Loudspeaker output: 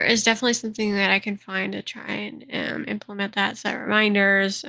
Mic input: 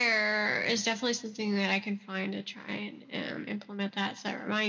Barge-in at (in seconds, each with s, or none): none